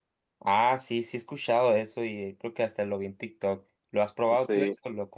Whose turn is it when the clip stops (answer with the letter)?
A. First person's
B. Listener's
B